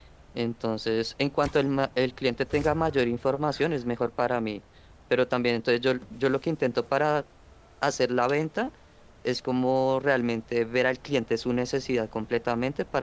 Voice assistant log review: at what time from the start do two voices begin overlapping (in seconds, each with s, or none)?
none